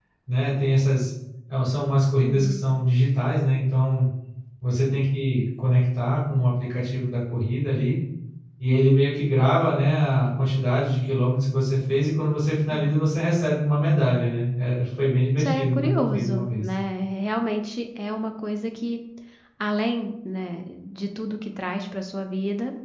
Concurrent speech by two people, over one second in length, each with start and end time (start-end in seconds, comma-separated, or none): 15.4-16.6